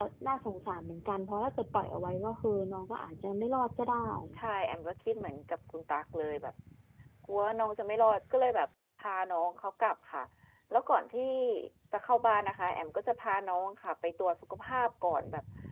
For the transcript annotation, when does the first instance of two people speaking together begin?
none

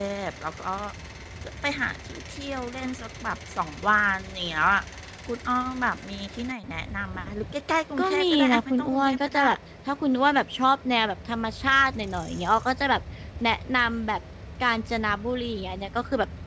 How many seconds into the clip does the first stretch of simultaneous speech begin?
8.0 s

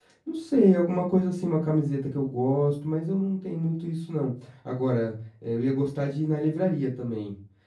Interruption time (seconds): none

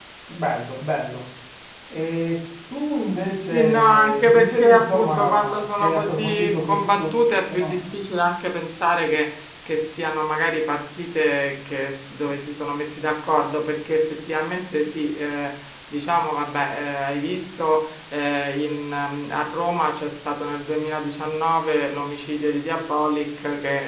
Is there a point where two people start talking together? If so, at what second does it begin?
3.5 s

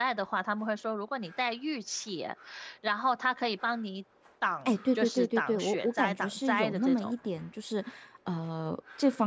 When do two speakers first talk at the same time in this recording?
4.6 s

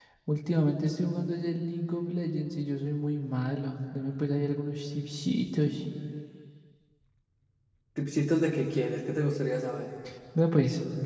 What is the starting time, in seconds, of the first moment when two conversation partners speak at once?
none

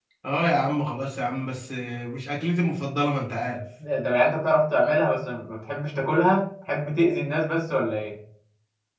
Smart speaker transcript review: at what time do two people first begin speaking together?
none

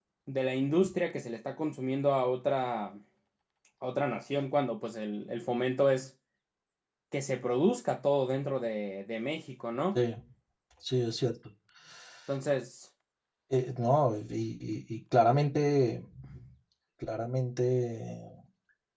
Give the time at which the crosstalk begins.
none

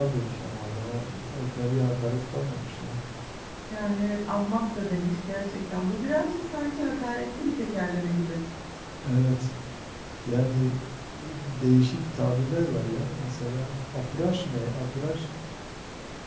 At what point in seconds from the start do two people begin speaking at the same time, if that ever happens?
none

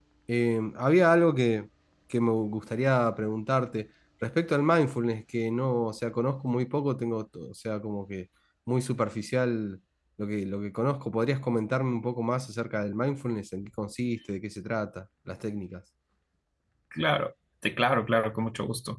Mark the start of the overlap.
none

